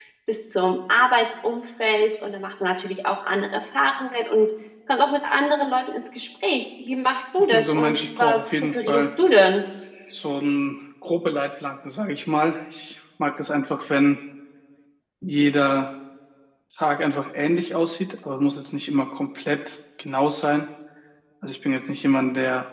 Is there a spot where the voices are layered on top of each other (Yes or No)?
Yes